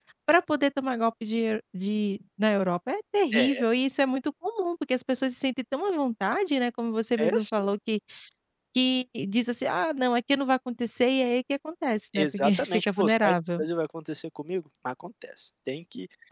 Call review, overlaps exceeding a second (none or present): present